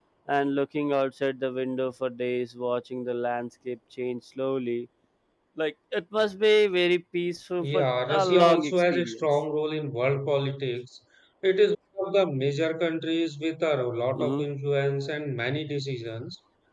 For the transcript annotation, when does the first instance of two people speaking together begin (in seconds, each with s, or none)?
7.6 s